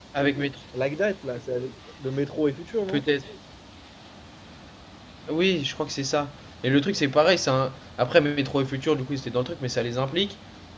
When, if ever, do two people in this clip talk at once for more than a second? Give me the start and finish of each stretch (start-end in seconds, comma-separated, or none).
none